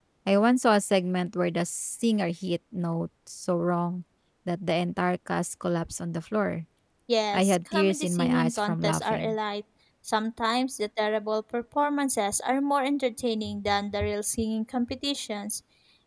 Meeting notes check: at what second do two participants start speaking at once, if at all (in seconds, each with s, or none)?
7.3 s